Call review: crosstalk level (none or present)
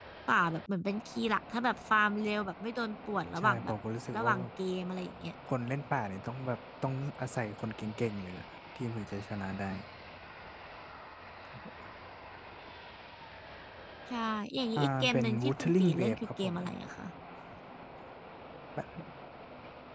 present